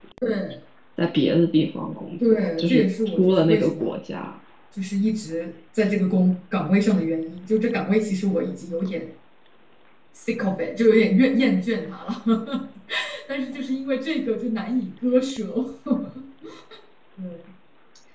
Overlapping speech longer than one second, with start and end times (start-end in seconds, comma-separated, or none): 2.3-3.9